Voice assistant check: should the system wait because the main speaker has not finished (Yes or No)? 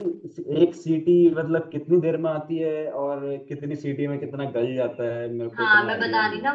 No